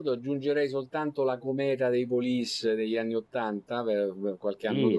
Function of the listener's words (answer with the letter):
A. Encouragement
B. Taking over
B